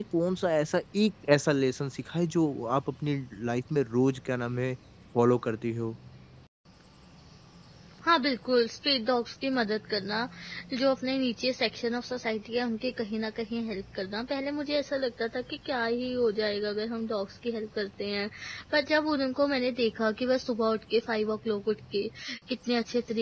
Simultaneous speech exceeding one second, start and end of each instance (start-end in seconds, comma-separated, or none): none